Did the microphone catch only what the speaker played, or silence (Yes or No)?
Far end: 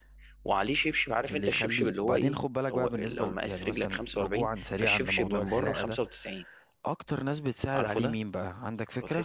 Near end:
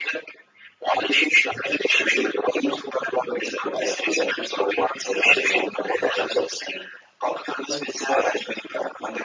Yes